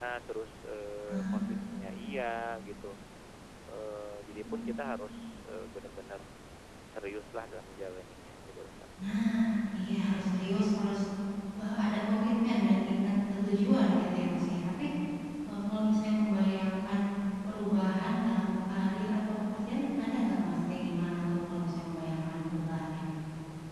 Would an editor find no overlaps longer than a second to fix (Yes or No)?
Yes